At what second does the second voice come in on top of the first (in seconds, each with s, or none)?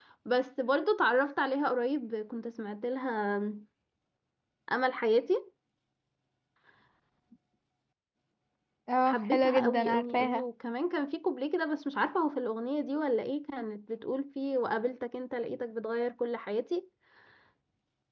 9.0 s